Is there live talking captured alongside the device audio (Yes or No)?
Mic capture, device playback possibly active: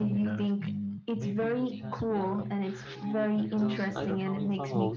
Yes